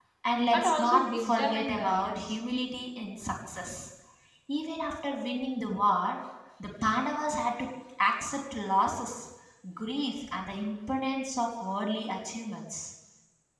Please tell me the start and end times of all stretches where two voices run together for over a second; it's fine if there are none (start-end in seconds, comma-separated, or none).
0.5-2.3